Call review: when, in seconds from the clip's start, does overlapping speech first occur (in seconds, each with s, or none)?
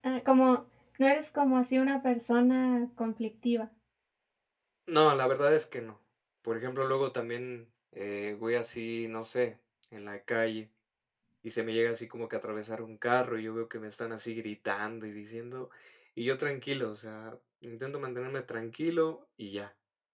none